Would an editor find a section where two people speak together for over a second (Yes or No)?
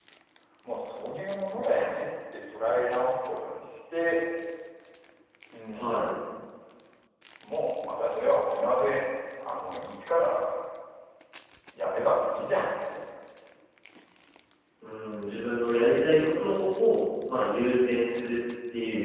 No